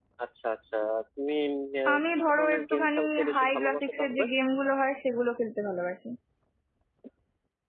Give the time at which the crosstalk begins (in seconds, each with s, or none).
1.9 s